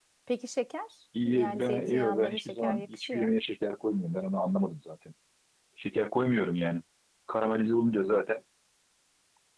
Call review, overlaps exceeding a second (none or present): present